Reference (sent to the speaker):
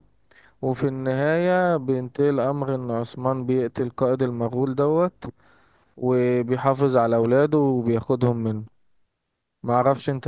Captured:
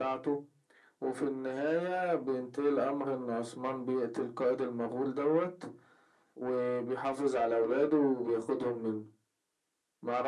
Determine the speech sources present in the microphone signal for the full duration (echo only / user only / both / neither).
echo only